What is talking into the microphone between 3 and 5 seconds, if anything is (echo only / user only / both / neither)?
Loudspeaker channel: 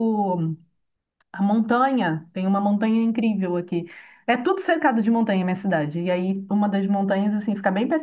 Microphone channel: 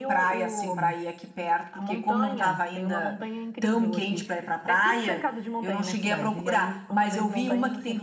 both